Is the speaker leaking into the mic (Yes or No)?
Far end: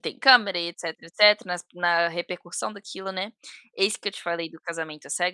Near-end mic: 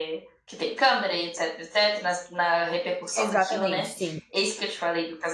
Yes